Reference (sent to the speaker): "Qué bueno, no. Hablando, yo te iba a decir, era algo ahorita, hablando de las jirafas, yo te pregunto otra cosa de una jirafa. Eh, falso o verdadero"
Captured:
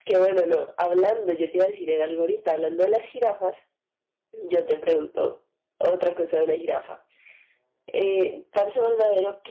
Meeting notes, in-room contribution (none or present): none